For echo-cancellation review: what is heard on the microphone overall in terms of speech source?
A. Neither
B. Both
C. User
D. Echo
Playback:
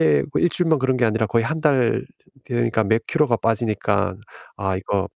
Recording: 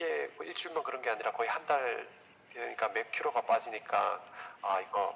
D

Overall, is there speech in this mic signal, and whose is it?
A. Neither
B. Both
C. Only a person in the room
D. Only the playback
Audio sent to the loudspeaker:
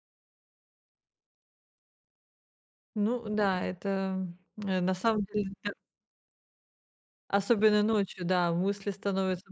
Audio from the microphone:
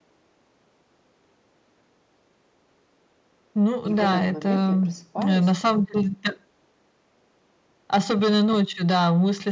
B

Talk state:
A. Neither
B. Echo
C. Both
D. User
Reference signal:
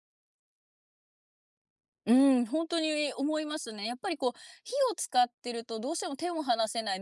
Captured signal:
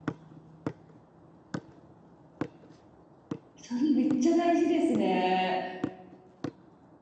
D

